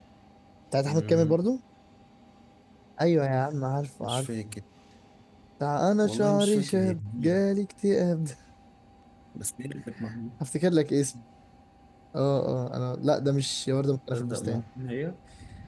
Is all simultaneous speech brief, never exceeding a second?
No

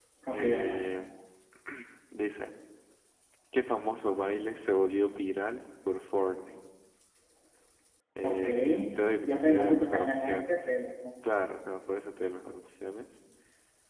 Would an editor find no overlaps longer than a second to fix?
No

